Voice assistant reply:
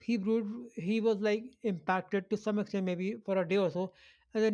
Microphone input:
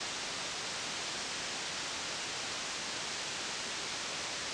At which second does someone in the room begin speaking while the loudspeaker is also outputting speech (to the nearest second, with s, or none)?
none